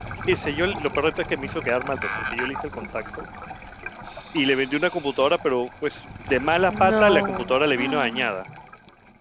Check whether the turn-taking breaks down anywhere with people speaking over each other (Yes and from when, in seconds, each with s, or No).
Yes, from 6.7 s